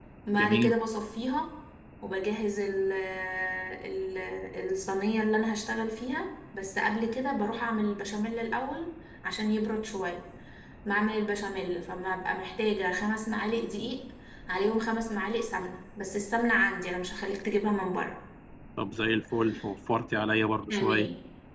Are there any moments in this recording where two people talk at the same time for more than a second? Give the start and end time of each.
none

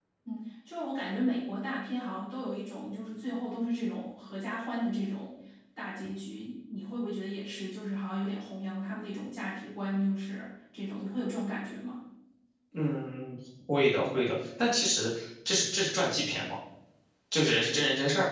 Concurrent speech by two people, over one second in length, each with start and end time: none

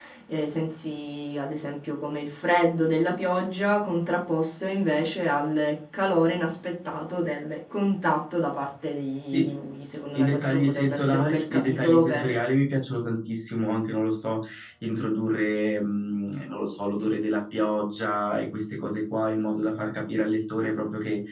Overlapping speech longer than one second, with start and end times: 10.2-12.4

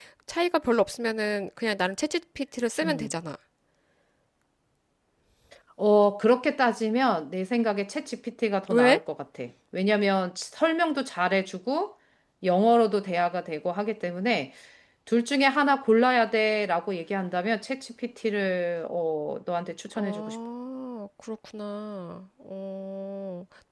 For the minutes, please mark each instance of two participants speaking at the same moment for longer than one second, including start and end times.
none

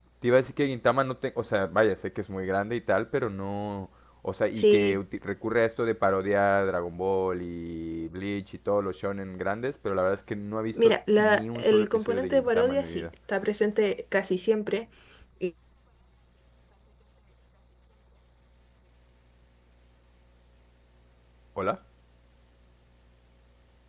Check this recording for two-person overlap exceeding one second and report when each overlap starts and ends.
10.8-13.0

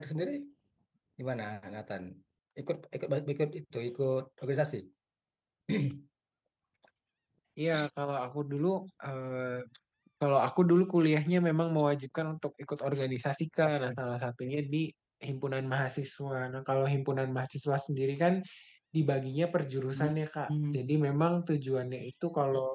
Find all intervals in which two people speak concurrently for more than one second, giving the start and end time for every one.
none

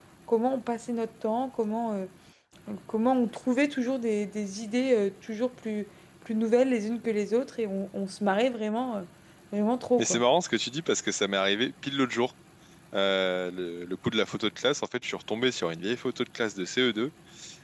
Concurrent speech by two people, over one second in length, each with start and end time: none

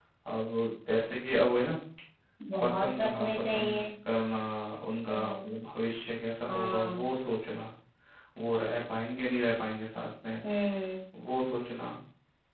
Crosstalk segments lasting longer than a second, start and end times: 2.6-3.8

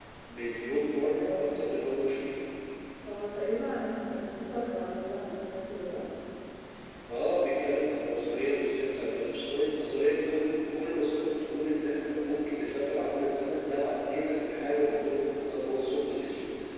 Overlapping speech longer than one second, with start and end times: none

